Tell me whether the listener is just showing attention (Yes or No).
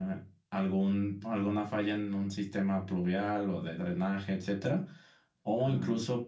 Yes